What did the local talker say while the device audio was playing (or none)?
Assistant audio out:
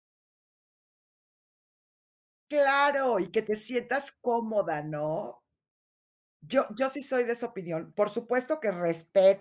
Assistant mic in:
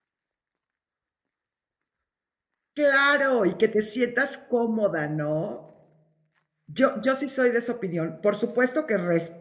none